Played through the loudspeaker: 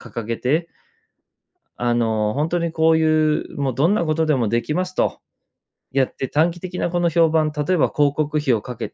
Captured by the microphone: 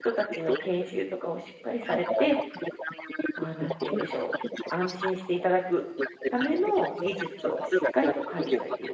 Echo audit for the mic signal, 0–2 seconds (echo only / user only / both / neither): both